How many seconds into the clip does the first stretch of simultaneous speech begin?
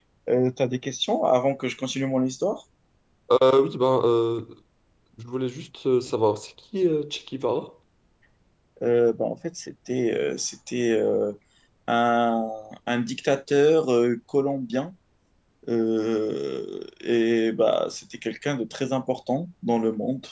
none

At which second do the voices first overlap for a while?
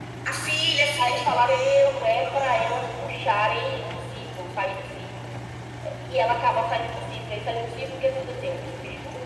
1.0 s

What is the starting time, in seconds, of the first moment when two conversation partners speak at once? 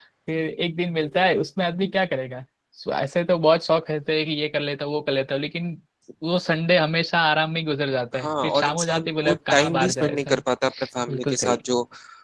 8.1 s

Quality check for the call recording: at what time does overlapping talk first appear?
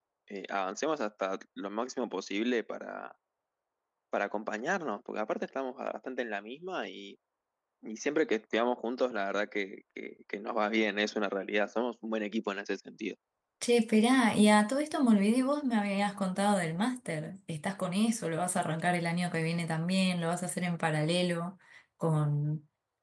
none

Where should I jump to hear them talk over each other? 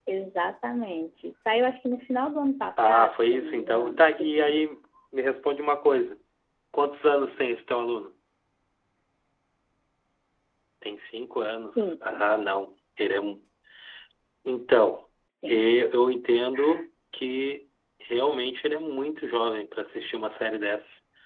2.8 s

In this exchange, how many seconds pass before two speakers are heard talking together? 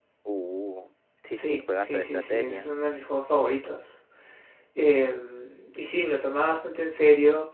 1.3 s

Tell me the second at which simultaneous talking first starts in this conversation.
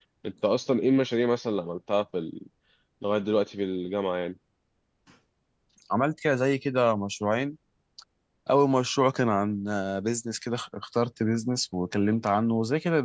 none

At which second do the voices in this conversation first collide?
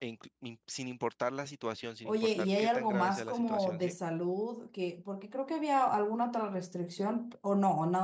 2.0 s

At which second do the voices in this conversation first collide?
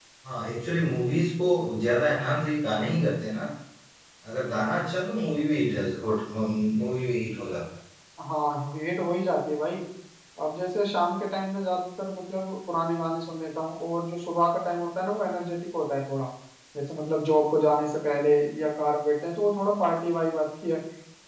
none

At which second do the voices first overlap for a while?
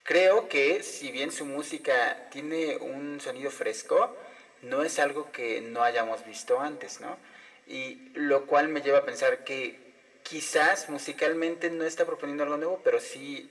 none

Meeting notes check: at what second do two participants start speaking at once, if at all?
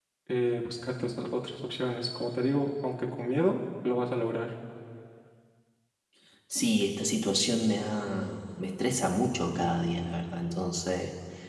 none

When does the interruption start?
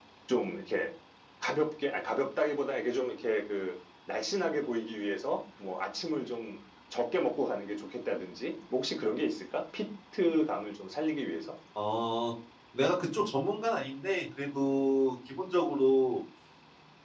none

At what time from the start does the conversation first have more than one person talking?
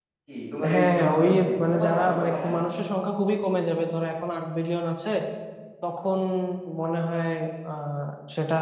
0.7 s

